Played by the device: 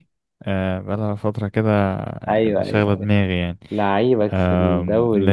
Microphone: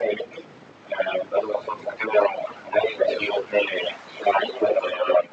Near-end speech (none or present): none